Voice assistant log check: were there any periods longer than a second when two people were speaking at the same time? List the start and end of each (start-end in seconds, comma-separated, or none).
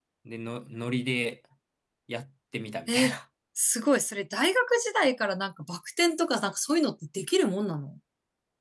none